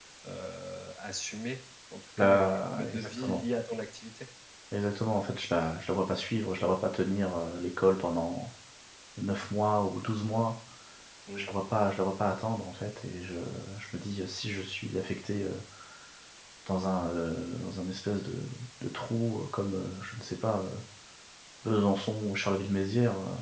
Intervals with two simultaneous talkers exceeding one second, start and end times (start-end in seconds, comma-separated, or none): 2.2-3.4